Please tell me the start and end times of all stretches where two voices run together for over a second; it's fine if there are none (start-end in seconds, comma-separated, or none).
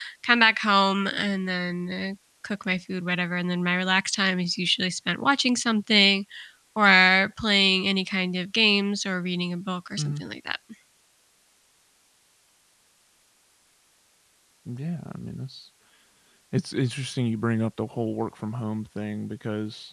none